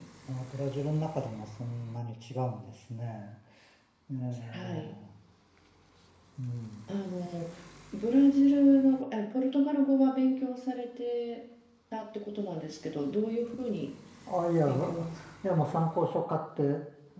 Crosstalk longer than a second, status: none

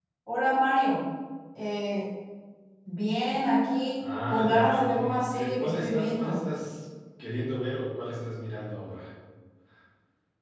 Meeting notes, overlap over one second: present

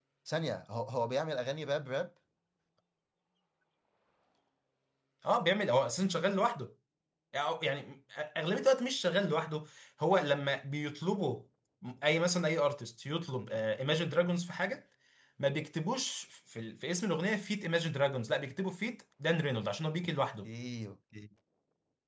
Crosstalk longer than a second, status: none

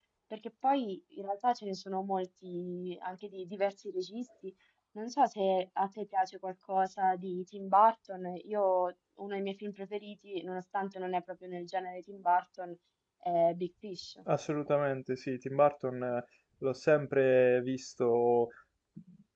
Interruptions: none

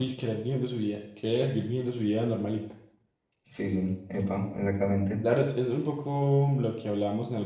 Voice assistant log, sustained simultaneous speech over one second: none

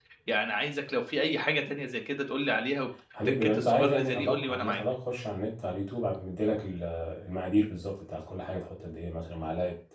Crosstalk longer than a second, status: present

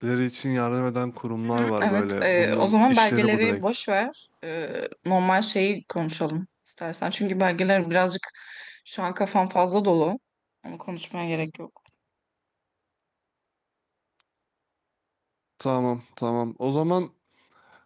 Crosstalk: present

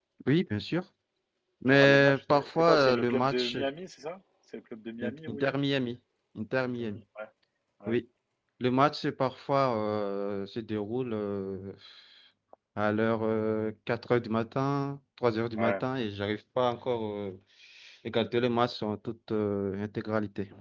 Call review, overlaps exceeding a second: present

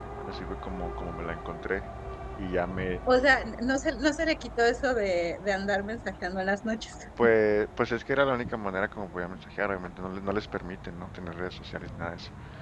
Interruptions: none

